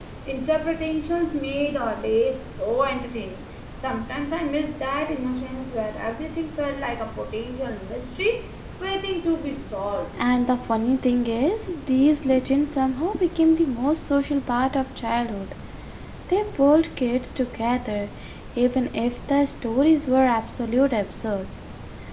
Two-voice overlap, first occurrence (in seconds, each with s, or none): none